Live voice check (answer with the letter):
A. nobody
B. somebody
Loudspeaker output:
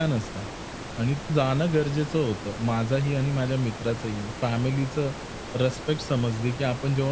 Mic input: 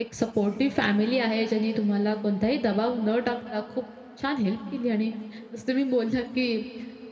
B